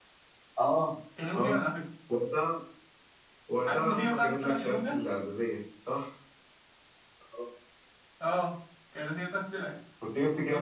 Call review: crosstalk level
present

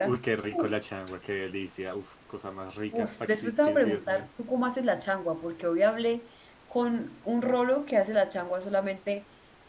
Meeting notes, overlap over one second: present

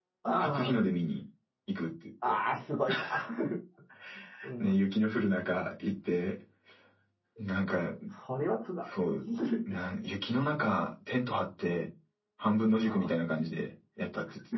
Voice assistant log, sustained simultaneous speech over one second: none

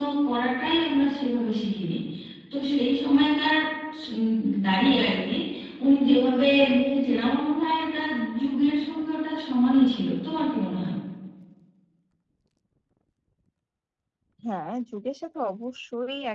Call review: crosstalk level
none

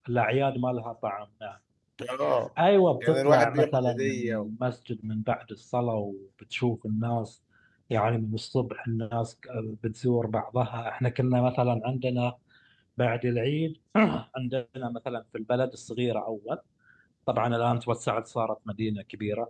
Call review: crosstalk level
present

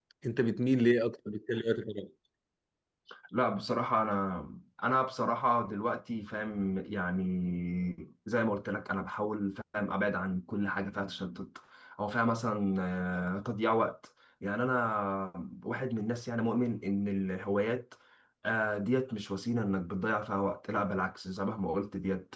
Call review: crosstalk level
none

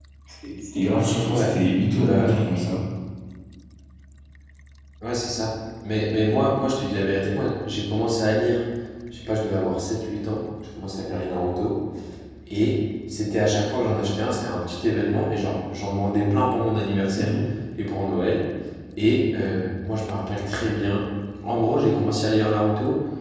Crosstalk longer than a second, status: none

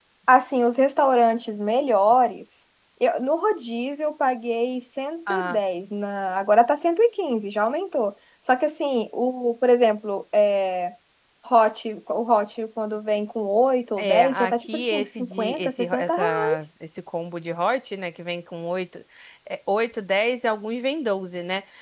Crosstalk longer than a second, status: present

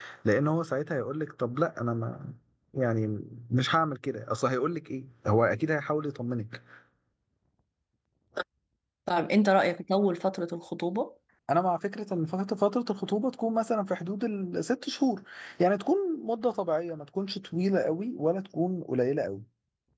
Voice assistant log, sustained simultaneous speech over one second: none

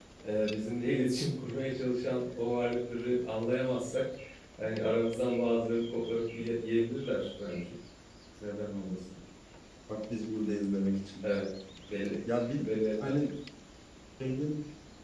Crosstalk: none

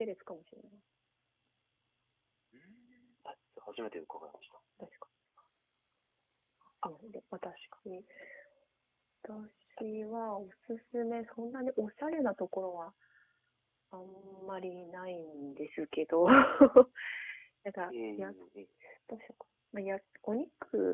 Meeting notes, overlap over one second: none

